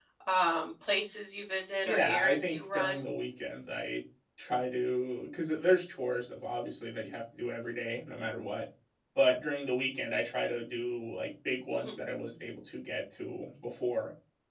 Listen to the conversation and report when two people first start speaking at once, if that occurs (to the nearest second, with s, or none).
2 s